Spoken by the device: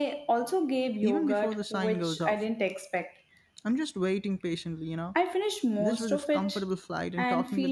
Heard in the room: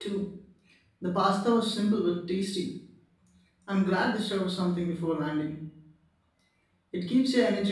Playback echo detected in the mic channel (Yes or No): No